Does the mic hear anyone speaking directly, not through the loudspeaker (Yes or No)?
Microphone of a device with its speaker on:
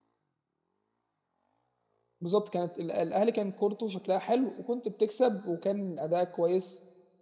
Yes